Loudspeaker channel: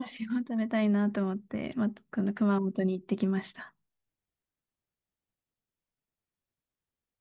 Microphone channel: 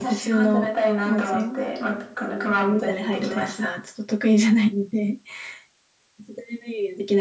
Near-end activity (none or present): present